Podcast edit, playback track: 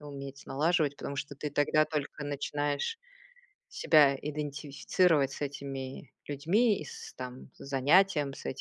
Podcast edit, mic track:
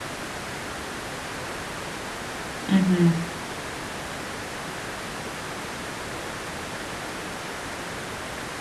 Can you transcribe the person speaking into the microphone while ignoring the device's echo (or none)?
Мгм.